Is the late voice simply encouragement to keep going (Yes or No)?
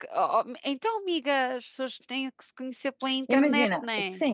No